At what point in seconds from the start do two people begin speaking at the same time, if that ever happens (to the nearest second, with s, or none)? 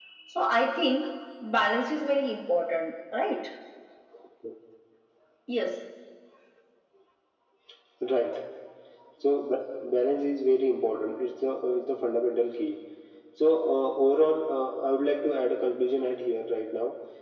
none